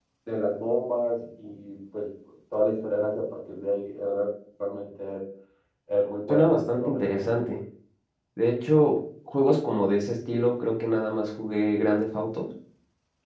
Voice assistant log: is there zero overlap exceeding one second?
No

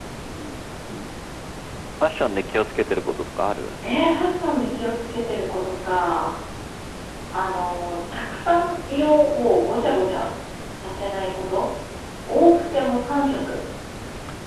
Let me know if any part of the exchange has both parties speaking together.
No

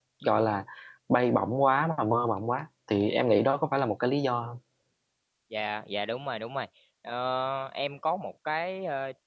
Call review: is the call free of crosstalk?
Yes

